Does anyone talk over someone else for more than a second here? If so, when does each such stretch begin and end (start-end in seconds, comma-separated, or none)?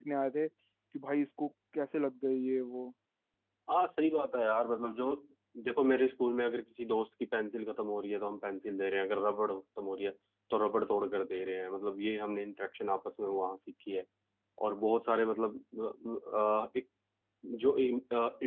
none